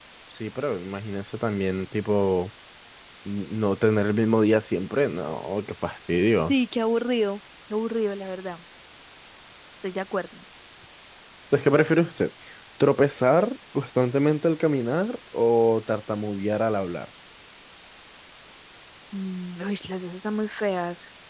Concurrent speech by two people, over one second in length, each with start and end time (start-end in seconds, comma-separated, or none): none